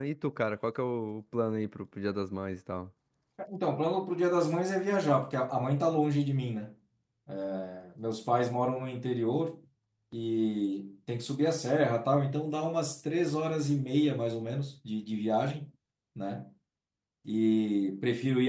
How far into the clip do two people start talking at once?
none

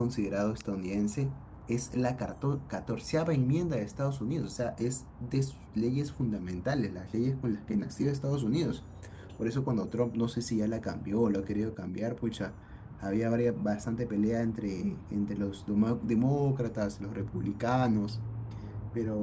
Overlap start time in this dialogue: none

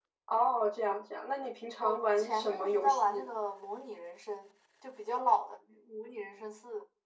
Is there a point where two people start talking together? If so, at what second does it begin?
1.8 s

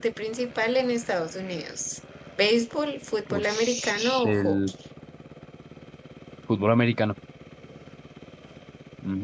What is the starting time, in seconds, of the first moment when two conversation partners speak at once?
3.3 s

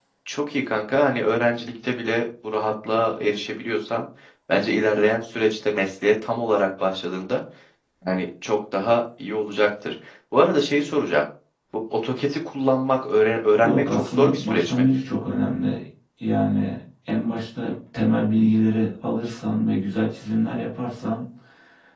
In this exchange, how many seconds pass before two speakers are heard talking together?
13.6 s

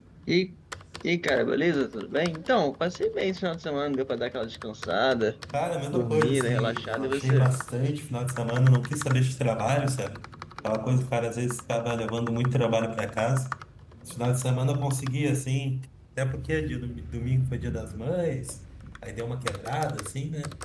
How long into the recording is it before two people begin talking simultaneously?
5.9 s

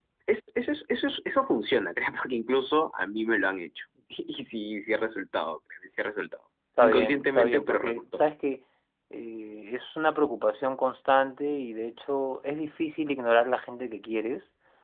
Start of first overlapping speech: 6.8 s

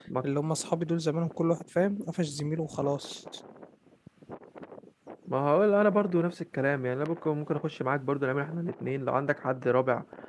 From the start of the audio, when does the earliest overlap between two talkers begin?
none

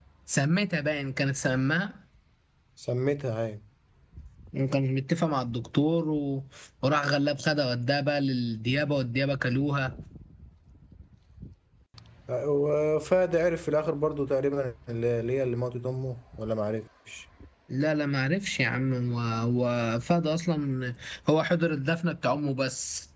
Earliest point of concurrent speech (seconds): none

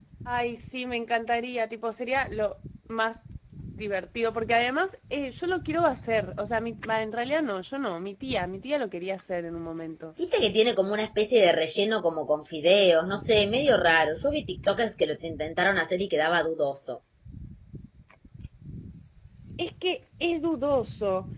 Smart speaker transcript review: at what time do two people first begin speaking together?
none

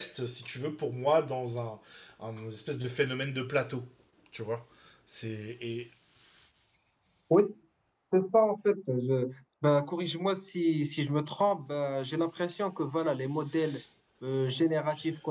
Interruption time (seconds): none

